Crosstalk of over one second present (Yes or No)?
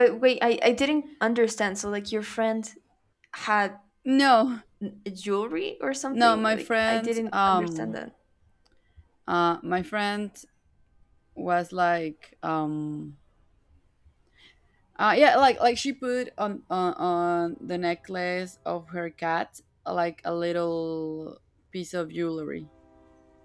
Yes